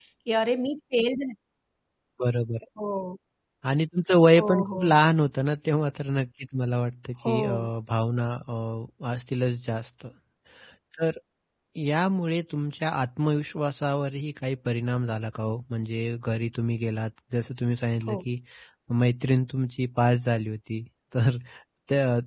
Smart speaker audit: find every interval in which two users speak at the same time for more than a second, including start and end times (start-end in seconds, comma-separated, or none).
none